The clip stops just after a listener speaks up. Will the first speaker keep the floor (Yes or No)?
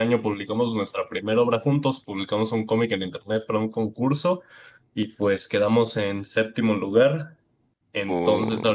Yes